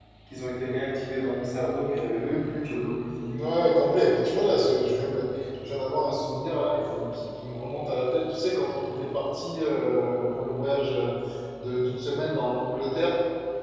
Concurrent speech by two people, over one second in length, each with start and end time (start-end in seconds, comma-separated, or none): none